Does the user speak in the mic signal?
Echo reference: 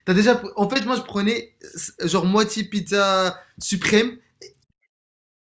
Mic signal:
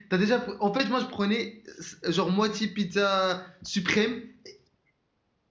No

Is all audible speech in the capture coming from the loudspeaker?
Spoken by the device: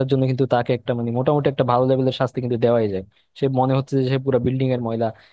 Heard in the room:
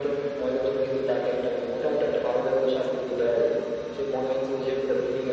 Yes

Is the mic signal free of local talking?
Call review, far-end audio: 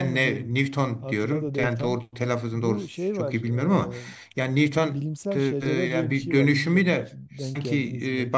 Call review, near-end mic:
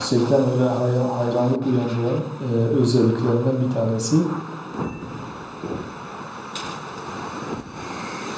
No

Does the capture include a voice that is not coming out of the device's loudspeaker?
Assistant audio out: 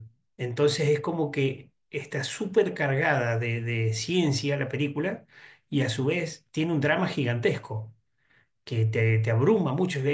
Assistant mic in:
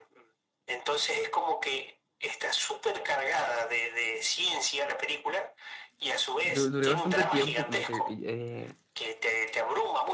Yes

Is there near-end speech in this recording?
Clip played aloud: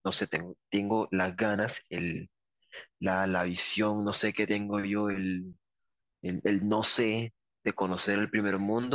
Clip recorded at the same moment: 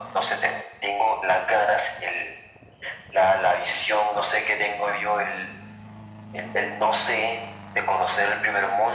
No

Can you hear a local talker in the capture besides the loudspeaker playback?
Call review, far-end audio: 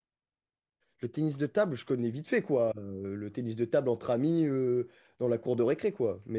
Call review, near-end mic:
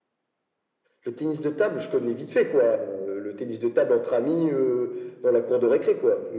No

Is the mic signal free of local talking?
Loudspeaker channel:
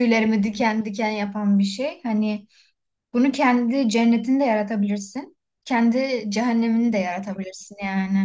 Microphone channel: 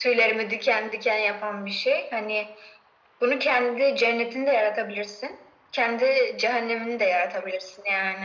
Yes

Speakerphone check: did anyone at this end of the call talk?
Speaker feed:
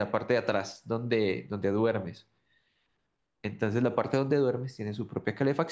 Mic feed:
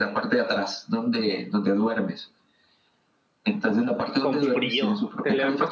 Yes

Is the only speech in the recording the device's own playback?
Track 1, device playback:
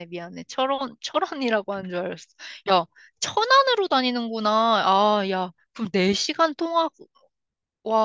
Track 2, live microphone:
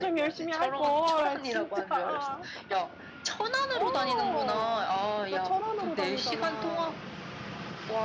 No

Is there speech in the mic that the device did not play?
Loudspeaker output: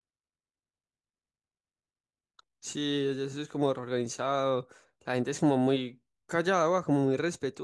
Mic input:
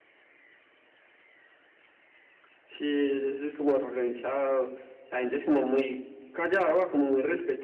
No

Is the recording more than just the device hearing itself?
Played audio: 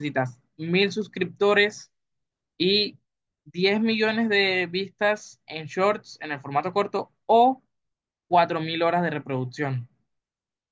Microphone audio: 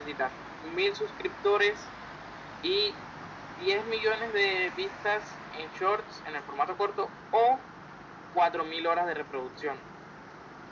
No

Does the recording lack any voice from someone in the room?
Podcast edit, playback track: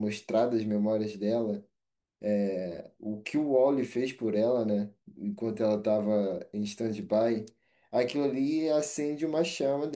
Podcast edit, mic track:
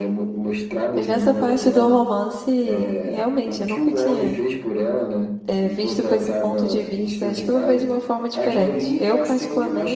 No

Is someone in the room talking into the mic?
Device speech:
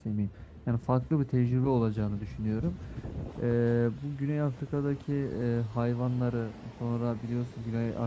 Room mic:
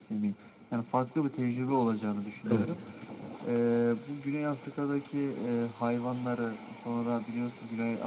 Yes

